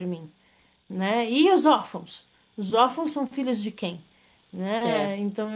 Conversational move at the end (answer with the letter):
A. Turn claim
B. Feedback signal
B